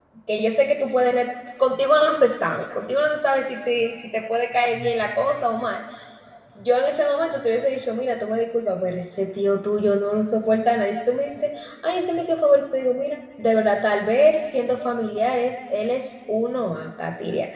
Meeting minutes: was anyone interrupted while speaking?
No

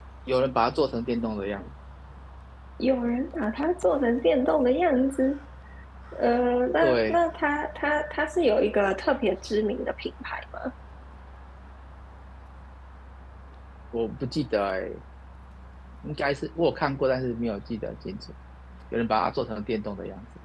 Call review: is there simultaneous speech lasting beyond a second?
No

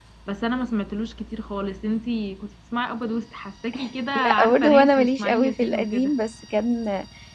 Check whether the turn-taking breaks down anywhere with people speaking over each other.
Yes, from 4.2 s

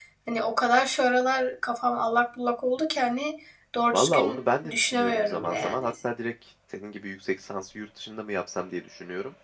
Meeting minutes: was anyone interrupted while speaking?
Yes, from 3.9 s

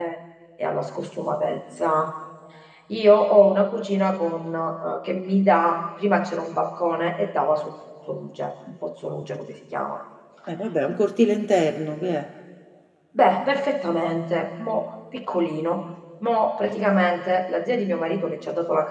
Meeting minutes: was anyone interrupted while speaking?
No

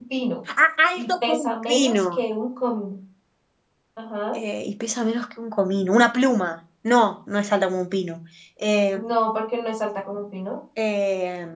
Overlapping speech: Yes, from 1.0 s

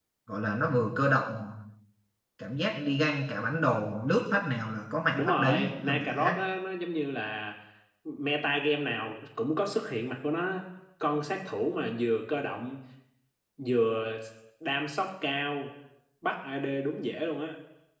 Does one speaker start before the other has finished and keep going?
Yes, from 5.1 s

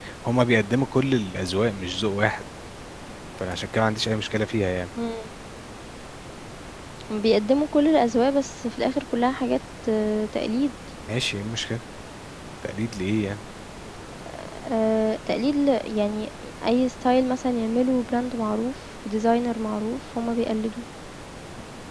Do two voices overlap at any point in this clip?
No

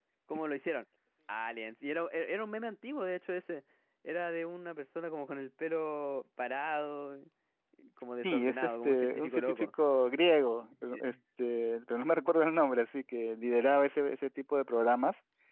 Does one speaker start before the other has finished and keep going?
Yes, from 8.2 s

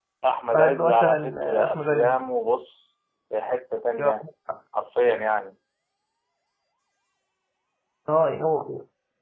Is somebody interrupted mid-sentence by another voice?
Yes, from 0.5 s

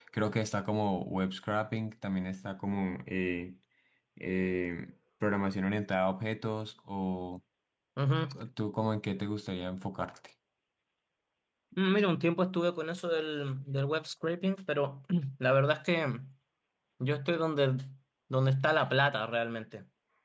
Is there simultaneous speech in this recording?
No

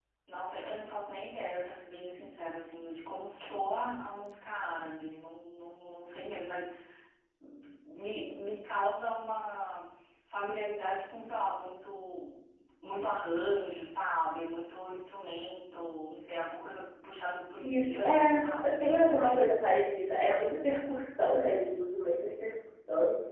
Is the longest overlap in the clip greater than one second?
Yes, from 17.6 s

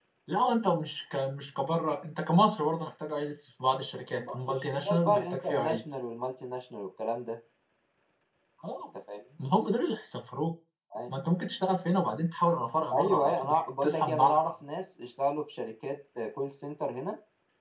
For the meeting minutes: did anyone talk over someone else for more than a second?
Yes, from 4.2 s

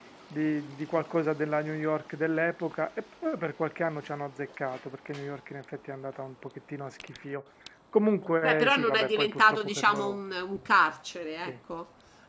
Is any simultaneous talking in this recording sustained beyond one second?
Yes, from 8.4 s

